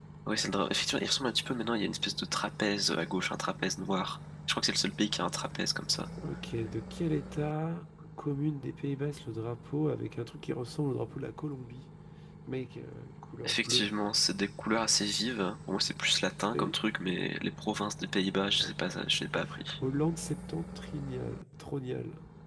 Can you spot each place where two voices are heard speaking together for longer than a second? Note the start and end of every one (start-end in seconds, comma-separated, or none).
none